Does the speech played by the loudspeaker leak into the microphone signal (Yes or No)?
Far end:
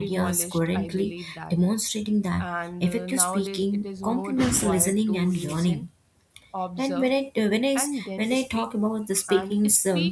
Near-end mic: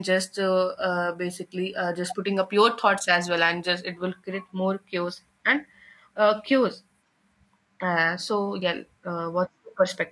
No